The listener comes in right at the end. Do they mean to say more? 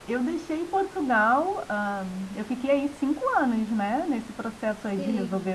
No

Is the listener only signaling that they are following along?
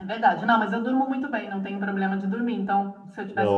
Yes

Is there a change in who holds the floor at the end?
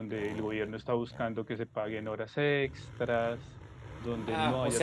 Yes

